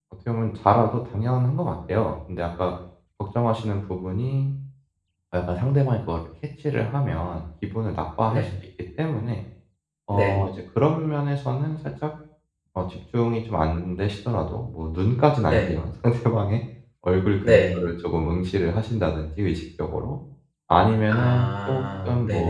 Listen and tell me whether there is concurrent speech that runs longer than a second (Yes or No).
Yes